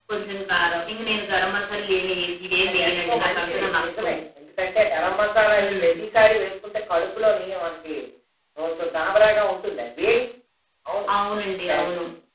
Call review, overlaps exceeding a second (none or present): present